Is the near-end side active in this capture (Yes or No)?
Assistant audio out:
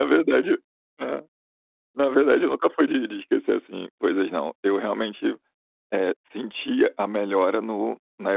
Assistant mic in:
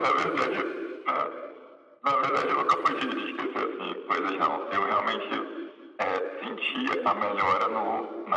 No